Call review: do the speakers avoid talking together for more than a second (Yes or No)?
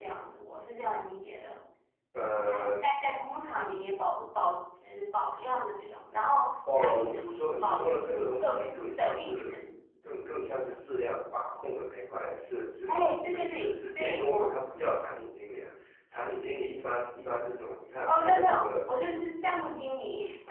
No